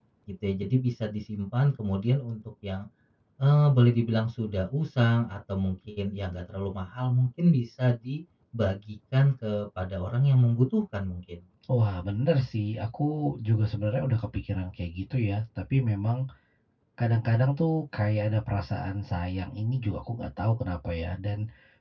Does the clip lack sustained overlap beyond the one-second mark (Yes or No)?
Yes